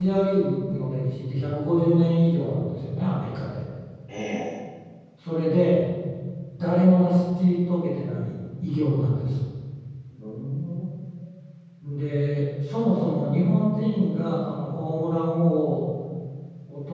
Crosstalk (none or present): none